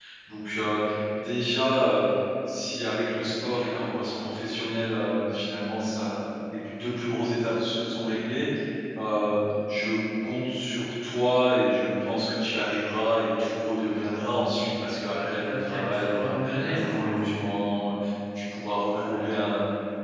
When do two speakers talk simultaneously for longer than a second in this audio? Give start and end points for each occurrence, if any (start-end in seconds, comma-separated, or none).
15.1-17.1